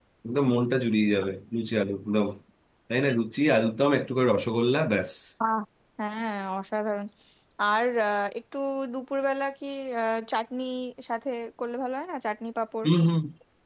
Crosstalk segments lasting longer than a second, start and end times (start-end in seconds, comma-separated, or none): none